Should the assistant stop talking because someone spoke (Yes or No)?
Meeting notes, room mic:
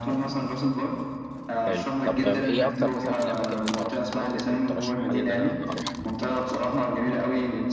Yes